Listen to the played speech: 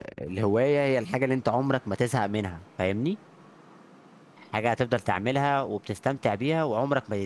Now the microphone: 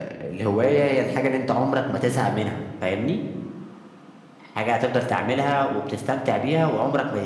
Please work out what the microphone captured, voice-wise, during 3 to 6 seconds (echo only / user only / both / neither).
echo only